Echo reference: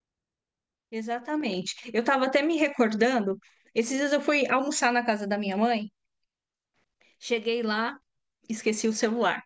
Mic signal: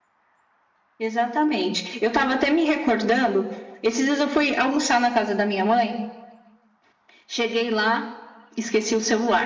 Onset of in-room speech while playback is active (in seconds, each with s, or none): none